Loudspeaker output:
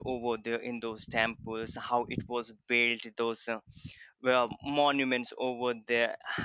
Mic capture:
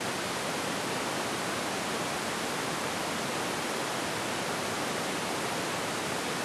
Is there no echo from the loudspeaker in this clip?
Yes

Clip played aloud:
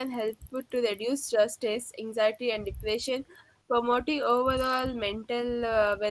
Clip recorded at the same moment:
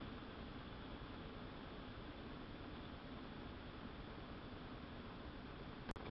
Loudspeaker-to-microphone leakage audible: No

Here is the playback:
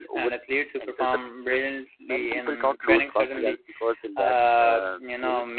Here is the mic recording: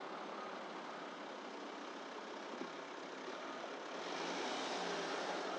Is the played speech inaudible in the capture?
Yes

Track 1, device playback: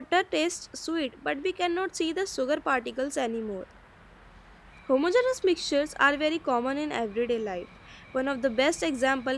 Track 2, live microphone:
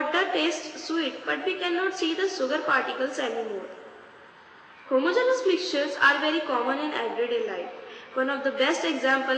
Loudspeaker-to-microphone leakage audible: Yes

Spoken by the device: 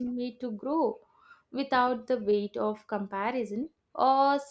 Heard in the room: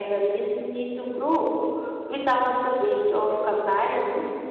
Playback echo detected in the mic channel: Yes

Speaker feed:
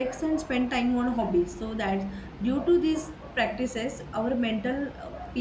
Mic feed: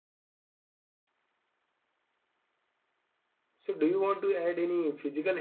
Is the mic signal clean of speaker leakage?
Yes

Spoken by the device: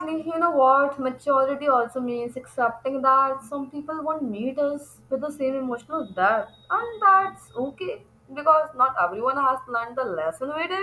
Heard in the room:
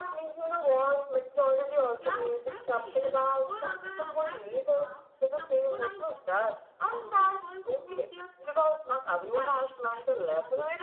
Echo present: Yes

